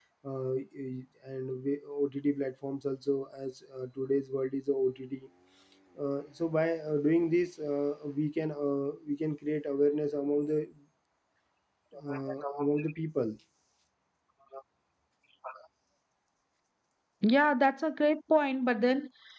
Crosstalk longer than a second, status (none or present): none